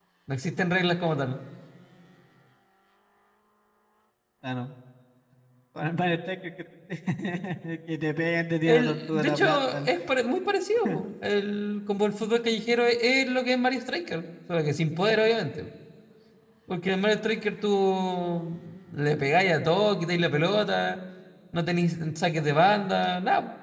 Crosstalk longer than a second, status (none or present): present